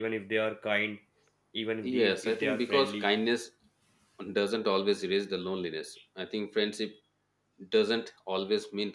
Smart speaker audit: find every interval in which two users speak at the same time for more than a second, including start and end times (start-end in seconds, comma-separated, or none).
1.8-3.1